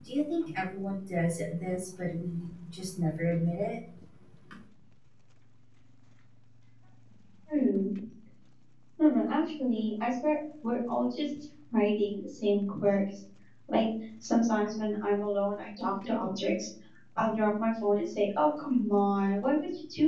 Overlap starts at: none

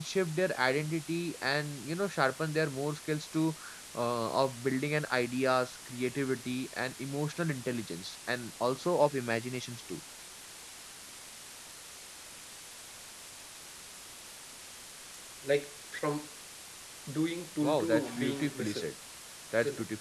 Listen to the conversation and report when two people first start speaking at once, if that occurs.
17.6 s

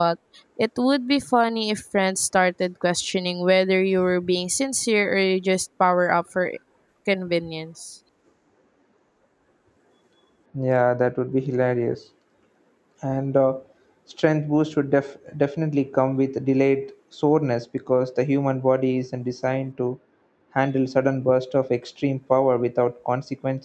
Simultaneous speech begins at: none

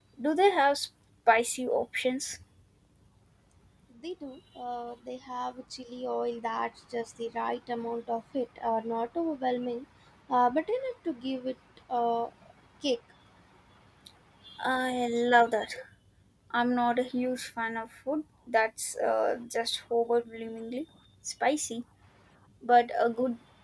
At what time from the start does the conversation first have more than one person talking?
none

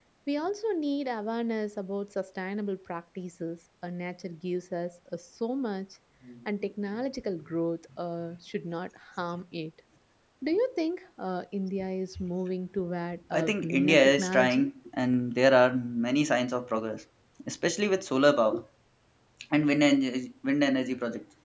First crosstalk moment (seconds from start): 13.3 s

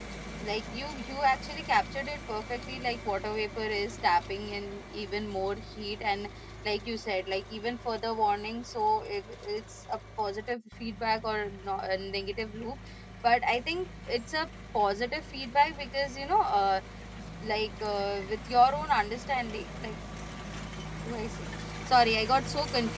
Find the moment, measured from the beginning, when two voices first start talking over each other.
none

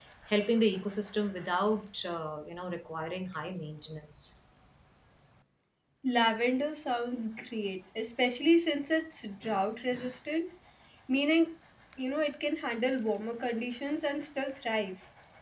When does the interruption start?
none

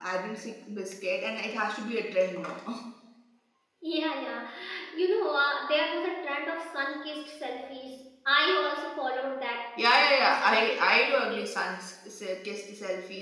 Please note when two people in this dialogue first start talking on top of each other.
9.8 s

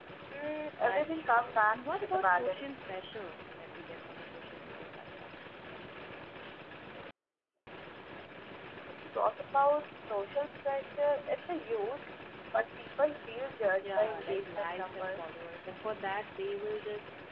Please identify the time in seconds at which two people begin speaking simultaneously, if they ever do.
0.8 s

